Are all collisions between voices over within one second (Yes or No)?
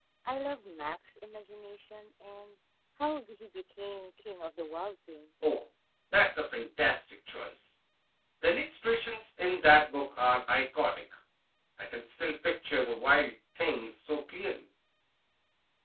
Yes